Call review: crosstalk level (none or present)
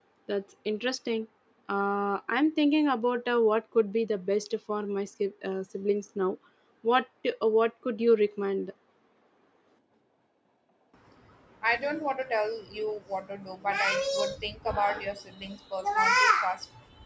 none